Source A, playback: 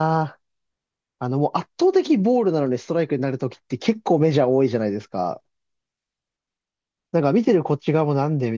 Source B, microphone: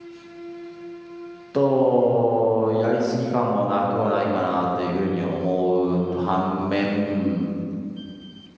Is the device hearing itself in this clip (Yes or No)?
No